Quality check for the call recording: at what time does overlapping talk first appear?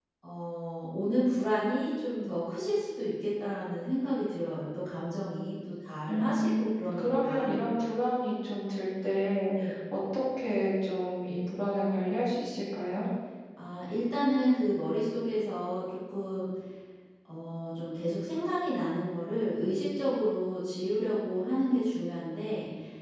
6 s

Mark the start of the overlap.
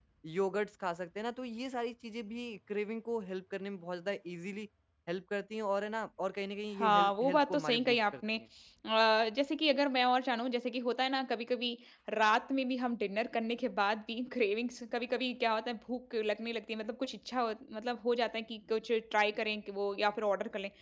7 s

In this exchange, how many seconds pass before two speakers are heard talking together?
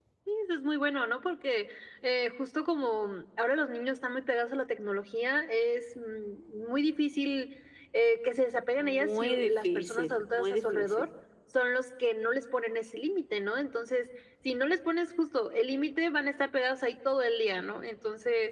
9 s

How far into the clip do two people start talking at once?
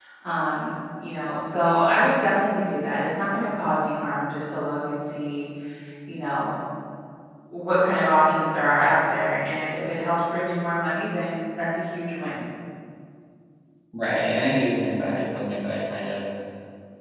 none

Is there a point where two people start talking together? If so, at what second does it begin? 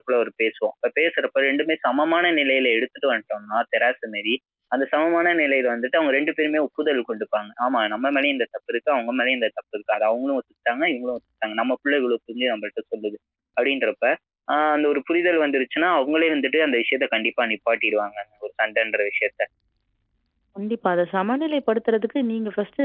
none

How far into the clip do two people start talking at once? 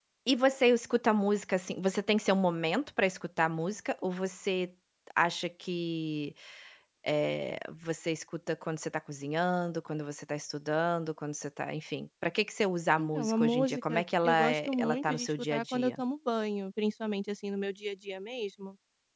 13 s

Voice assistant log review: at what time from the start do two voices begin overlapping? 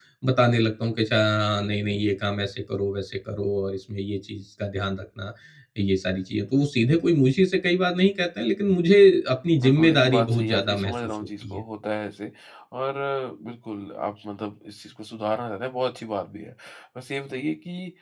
10 s

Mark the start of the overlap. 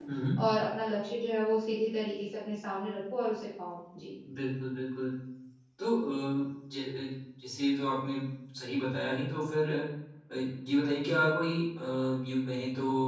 none

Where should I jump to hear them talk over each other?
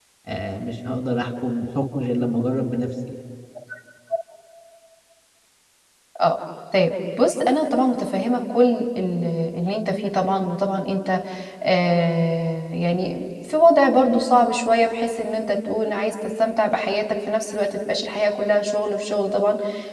none

